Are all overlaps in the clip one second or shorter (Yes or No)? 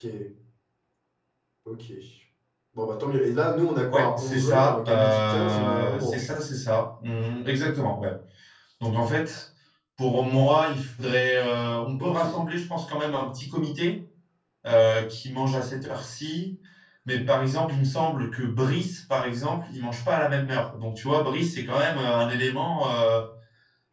No